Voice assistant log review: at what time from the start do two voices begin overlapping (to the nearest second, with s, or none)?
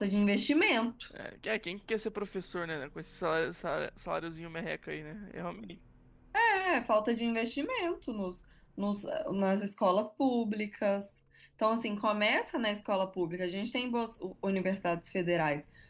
none